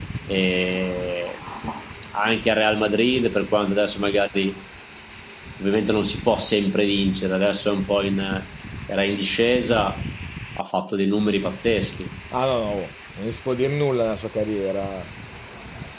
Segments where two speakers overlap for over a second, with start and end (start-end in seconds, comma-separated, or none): none